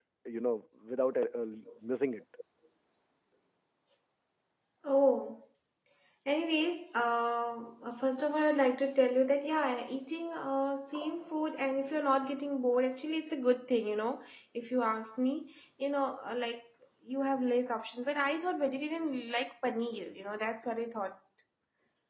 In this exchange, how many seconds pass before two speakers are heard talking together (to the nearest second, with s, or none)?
none